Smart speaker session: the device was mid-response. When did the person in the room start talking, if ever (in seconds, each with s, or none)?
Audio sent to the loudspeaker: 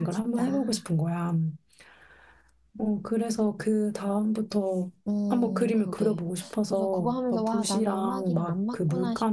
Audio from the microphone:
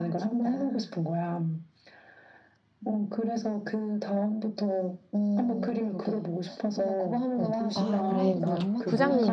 7.4 s